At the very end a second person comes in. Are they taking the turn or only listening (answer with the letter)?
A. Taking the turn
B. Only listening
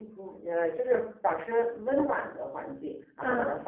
A